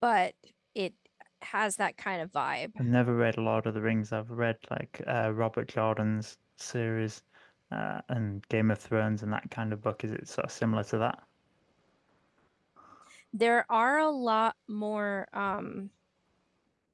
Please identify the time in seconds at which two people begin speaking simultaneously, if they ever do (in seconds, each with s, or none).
none